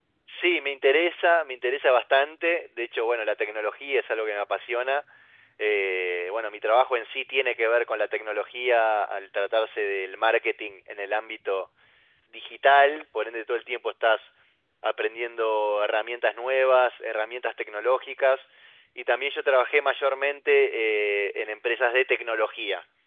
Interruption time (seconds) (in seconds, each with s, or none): none